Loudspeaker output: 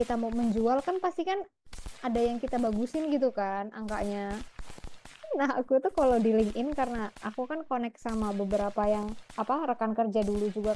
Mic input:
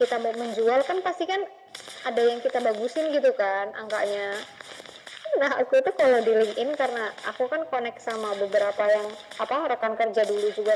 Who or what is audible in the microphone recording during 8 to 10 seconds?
echo only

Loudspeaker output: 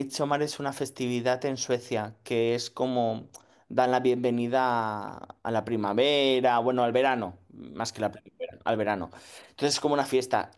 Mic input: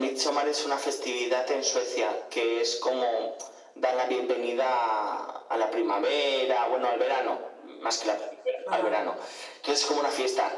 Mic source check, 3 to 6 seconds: echo only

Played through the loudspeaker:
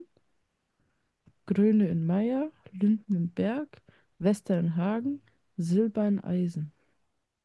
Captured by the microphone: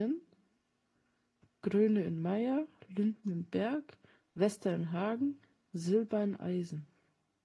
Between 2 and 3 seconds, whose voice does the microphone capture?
echo only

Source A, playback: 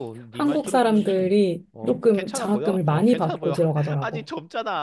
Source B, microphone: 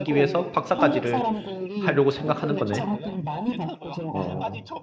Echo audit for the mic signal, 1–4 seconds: both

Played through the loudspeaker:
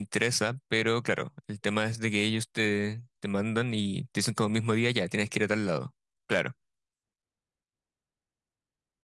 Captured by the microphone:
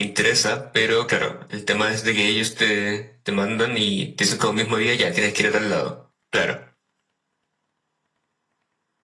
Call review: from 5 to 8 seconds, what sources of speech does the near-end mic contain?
echo only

